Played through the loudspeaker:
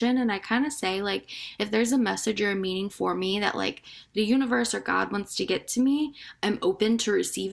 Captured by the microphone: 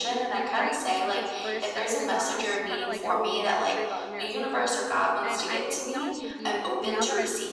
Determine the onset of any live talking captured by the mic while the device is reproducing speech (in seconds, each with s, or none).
0.5 s